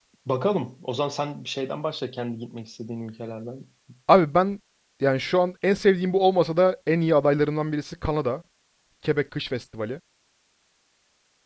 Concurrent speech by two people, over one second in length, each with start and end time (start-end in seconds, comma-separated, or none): none